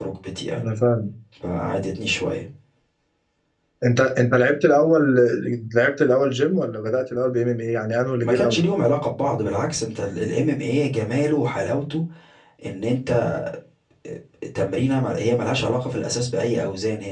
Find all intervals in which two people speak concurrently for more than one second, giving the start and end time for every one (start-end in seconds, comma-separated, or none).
none